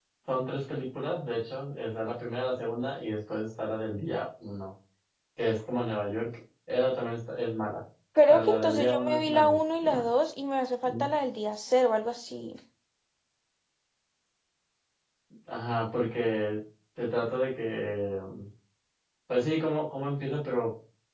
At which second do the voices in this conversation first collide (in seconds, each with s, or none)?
8.3 s